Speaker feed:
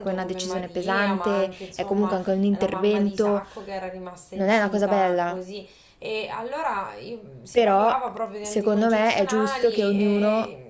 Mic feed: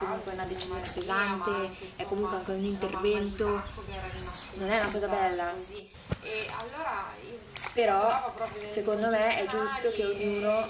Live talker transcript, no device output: none

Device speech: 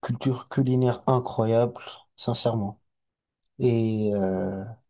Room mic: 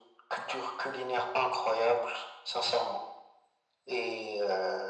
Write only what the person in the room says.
none

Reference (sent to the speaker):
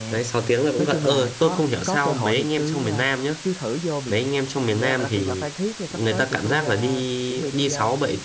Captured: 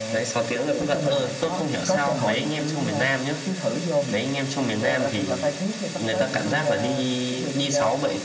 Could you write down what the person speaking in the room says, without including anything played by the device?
none

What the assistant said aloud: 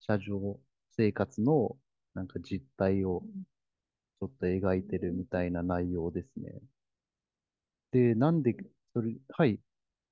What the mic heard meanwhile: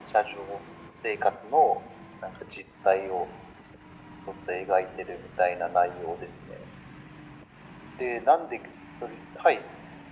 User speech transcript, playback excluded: none

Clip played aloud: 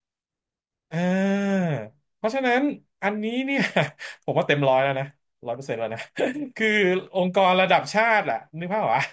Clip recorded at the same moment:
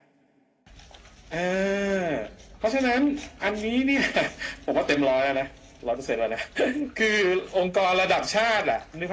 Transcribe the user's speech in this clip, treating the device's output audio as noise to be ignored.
none

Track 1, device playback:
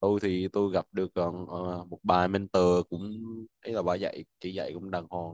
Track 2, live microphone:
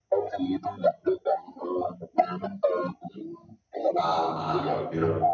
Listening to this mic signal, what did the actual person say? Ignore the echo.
à, à rồi hiểu rồi

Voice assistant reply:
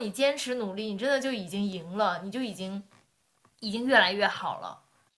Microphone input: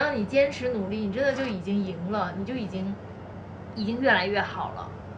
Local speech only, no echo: none

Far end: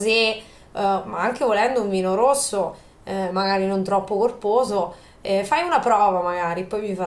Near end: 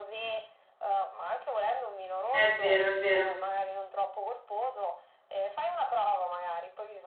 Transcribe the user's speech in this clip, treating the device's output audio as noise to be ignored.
È vero, è vero.

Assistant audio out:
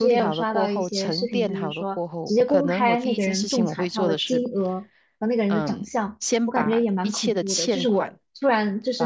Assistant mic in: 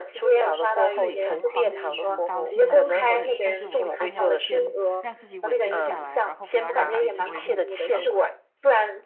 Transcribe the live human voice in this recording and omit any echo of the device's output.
对，很狂喜、很高兴、很兴奋，但是我会尽量先让自己稳定下来，然后不要让自己成为目标。

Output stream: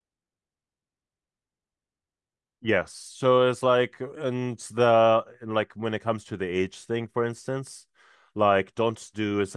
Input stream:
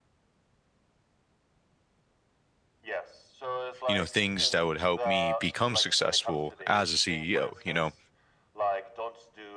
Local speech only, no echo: you know things that would help me become successful as a CEO, you know,

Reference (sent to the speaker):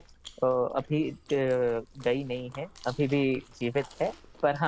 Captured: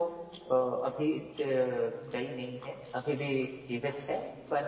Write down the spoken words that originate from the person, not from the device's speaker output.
none

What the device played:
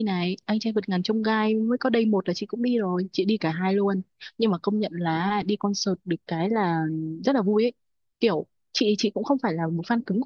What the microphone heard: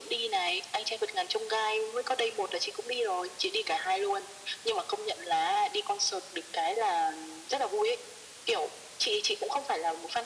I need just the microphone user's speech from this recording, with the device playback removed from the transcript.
none

